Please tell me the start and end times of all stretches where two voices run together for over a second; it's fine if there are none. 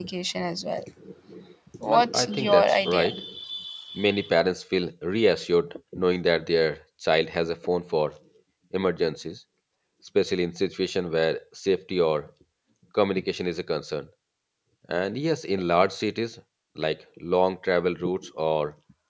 1.8-3.1

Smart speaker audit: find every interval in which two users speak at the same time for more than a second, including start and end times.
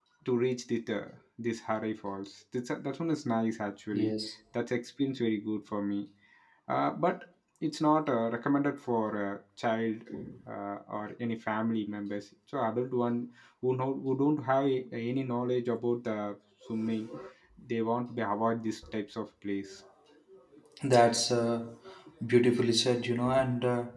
none

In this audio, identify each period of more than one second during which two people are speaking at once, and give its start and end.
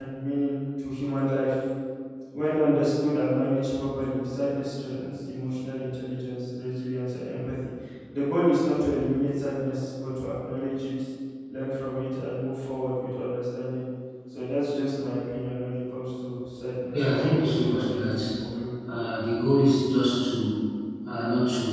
16.9-18.2

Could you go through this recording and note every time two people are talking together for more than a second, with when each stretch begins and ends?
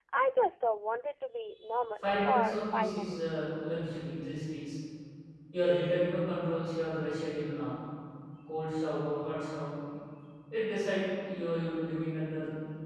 2.0-3.4

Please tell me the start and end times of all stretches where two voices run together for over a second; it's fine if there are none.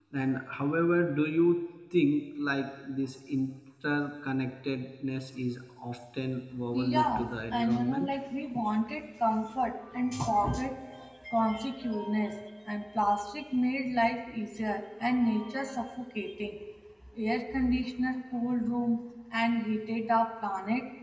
6.7-8.1

